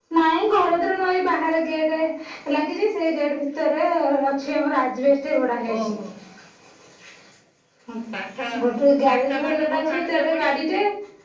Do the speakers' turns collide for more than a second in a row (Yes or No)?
Yes